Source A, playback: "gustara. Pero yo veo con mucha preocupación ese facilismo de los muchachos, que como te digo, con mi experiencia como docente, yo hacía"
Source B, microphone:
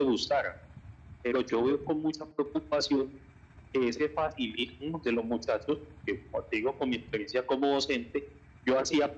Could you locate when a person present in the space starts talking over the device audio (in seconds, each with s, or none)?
none